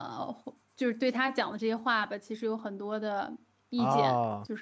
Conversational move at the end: taking over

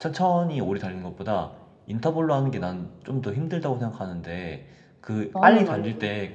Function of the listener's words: listening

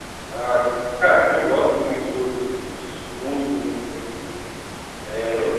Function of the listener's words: listening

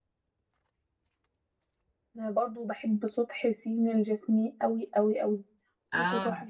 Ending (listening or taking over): listening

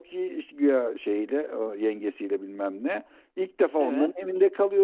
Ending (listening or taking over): listening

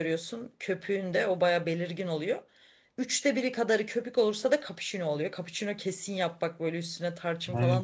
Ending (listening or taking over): taking over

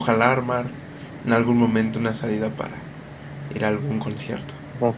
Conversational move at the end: taking over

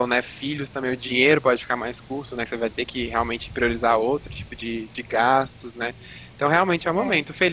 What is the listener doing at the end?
listening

